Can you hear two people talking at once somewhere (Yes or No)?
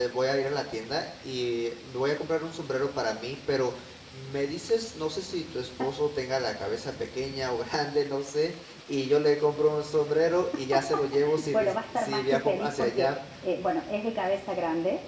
Yes